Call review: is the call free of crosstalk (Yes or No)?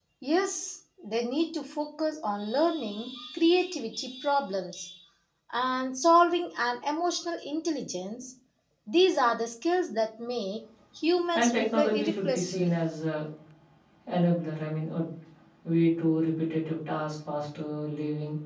No